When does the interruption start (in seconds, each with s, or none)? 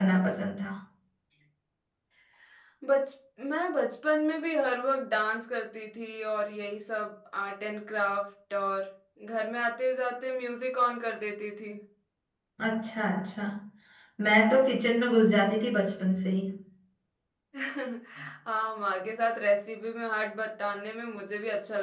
none